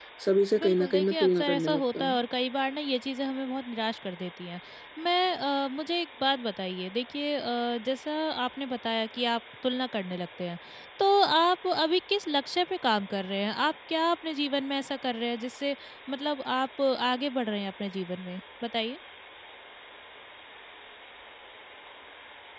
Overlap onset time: 0.6 s

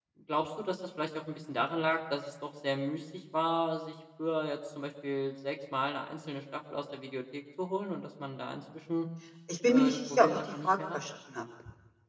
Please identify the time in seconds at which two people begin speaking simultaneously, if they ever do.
9.7 s

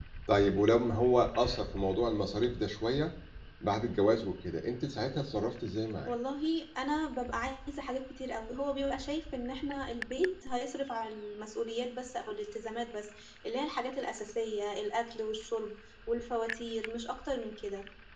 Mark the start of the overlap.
none

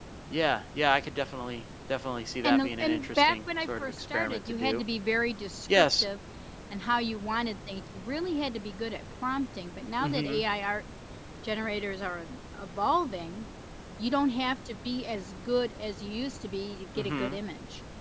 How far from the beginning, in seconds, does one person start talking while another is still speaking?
2.4 s

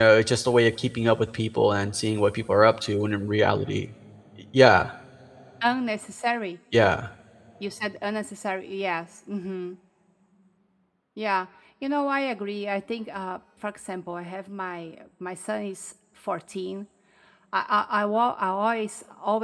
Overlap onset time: none

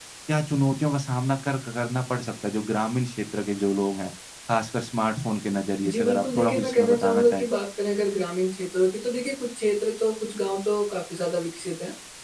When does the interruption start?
5.8 s

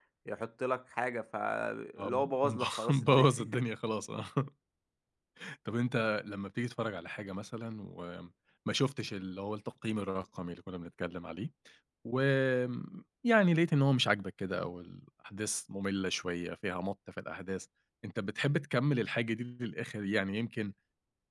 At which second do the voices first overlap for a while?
2.0 s

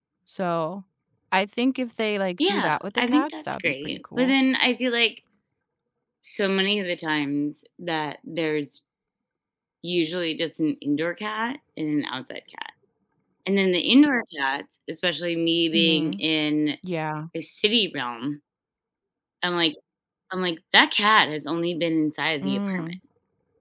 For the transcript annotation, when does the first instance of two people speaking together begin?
2.5 s

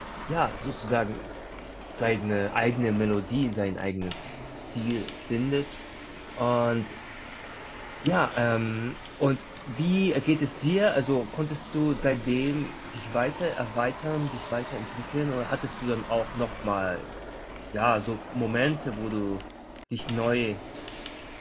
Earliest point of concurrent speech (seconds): none

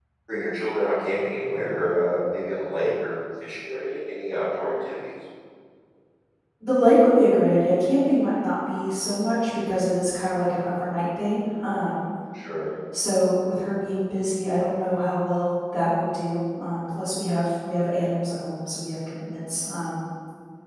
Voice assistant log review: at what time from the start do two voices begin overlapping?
none

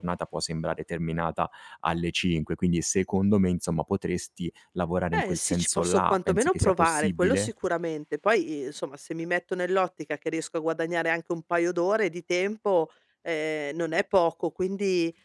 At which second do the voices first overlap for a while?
5.1 s

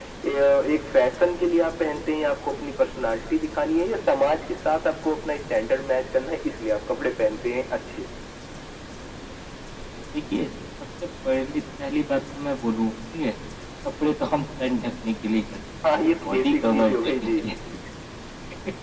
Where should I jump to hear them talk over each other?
15.8 s

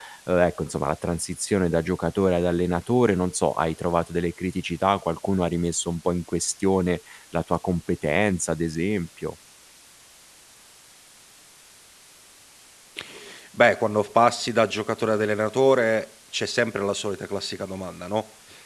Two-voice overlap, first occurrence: none

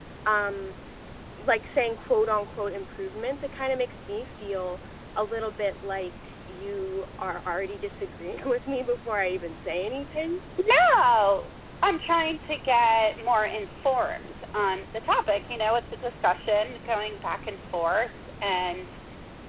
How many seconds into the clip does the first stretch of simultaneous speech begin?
none

